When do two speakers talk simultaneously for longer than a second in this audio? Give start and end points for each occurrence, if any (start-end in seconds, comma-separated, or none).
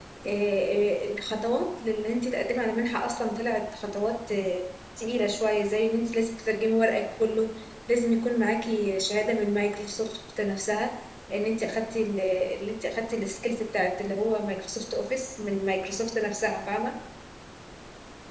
none